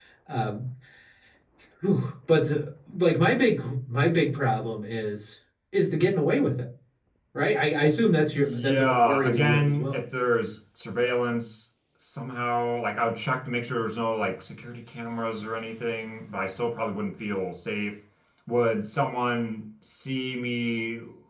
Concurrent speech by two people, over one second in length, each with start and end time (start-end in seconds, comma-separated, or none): 8.3-10.0